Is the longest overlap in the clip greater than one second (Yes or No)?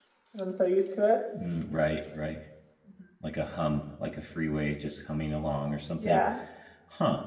No